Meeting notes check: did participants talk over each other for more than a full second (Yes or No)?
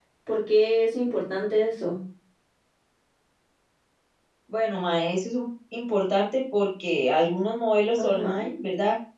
No